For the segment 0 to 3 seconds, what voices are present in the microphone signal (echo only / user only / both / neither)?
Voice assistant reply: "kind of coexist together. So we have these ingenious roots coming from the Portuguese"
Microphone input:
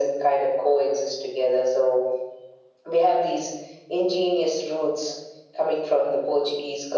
echo only